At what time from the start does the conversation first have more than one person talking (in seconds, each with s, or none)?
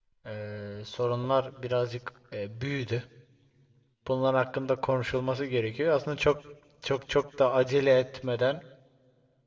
none